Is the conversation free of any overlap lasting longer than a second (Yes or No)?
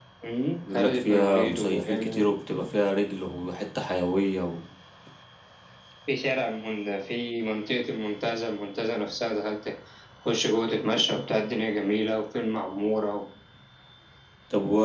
No